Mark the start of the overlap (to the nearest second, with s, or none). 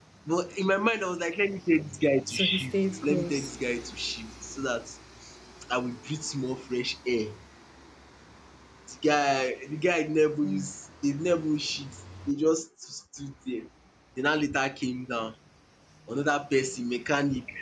2 s